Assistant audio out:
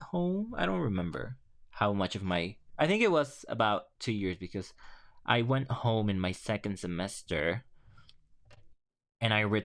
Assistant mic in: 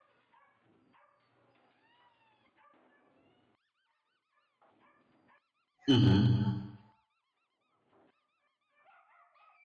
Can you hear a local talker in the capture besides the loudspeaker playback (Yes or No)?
Yes